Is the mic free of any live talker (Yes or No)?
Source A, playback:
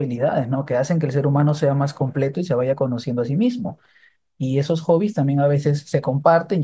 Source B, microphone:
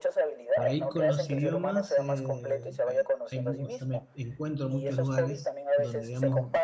No